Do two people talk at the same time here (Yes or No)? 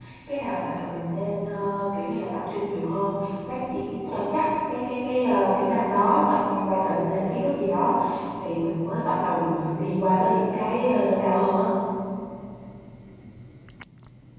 No